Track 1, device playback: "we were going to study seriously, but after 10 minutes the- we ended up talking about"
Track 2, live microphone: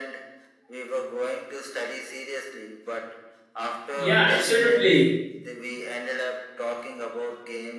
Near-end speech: present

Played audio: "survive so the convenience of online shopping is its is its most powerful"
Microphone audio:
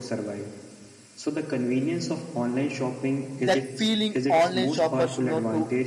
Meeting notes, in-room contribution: present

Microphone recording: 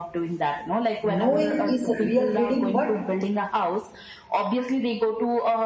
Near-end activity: present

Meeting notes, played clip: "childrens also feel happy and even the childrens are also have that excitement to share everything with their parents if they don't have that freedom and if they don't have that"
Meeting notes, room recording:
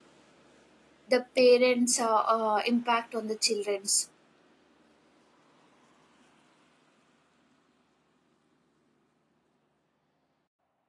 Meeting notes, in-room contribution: present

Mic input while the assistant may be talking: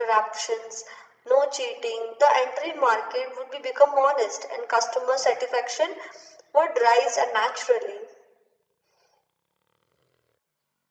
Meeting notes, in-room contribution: none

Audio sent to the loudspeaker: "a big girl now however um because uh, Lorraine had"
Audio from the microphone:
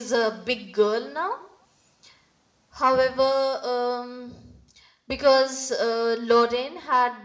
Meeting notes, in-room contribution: none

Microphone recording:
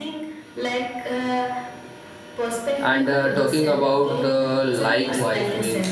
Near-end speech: present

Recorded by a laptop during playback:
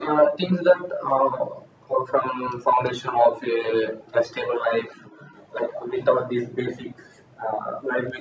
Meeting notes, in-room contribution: none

